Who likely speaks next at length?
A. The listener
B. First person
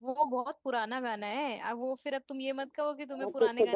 A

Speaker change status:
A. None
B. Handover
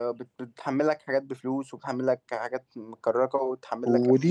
B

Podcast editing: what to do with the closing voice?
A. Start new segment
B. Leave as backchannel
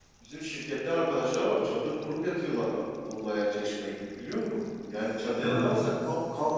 B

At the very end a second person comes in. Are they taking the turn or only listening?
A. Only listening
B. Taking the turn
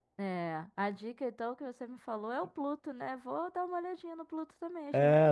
B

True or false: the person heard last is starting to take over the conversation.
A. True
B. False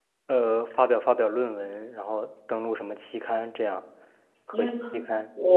A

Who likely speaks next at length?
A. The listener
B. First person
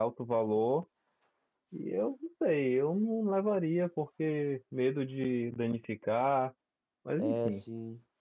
A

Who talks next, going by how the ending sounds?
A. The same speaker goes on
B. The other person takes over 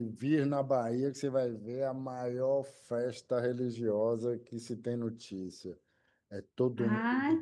B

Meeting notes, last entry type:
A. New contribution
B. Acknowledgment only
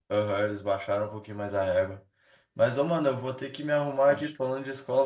B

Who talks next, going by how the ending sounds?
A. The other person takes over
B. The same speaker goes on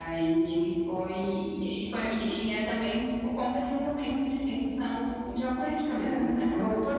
A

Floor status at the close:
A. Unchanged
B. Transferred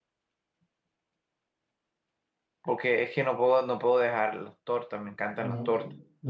B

